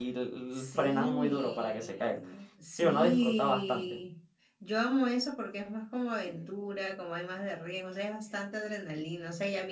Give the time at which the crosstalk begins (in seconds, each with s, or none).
0.5 s